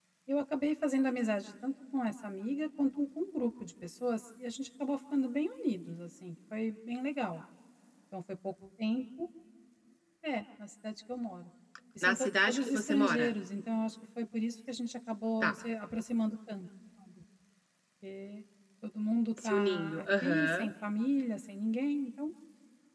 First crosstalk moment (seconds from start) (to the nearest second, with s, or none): 12 s